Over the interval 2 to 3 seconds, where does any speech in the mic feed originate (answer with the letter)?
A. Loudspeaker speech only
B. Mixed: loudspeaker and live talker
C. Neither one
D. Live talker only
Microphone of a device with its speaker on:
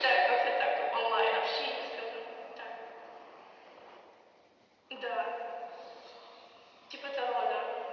A